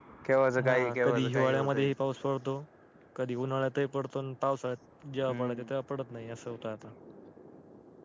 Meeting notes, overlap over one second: present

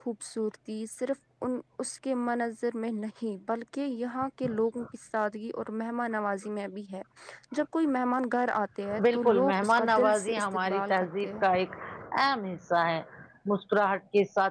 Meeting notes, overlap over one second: present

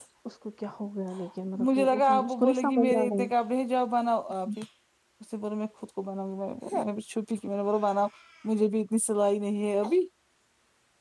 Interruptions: present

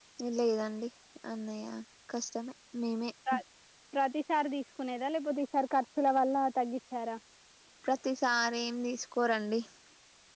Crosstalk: none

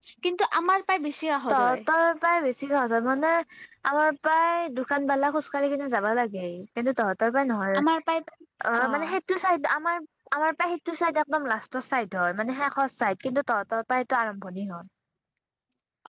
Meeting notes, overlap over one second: none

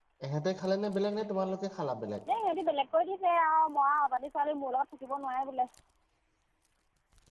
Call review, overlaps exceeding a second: none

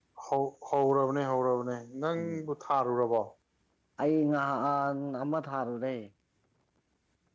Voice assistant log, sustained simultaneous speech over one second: none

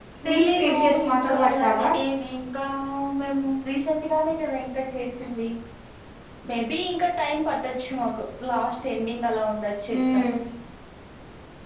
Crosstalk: present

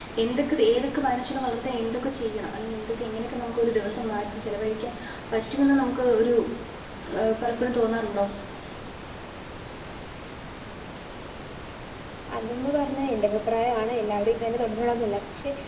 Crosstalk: none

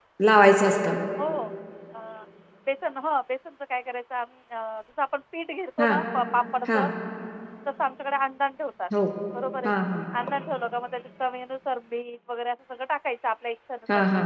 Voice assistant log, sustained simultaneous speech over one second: none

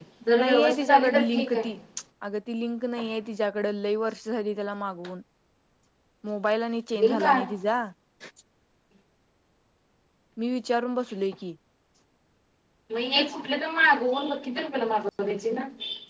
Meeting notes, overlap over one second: present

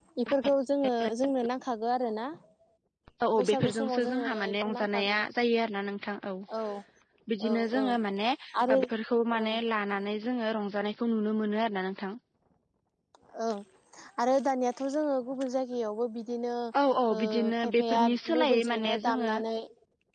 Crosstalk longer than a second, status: present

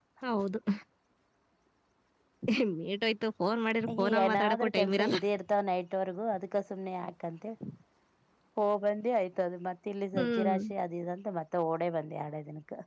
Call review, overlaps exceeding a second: present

